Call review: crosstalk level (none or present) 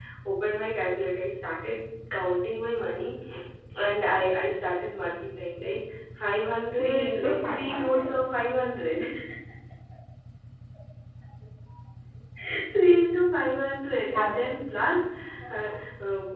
present